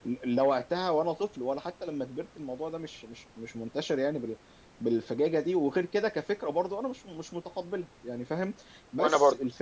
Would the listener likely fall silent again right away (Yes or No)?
Yes